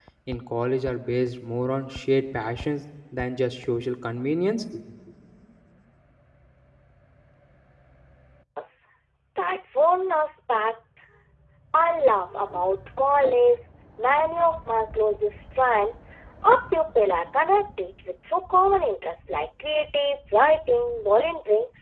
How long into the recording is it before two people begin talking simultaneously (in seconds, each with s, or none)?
none